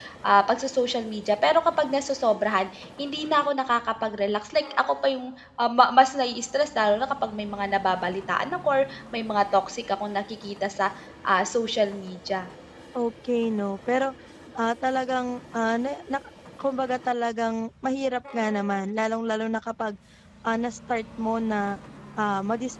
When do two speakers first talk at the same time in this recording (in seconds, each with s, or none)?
none